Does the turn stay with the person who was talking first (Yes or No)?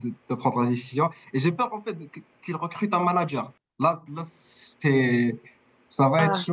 Yes